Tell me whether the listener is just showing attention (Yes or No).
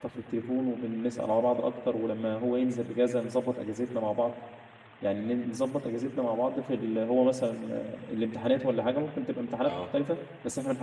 Yes